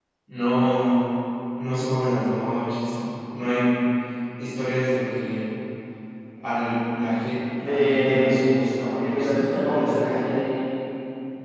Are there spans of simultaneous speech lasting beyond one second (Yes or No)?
Yes